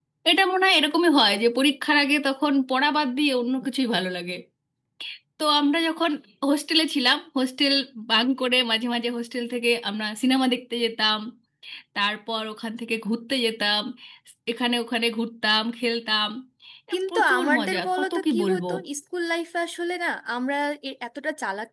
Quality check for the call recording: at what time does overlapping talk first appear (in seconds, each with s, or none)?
17.1 s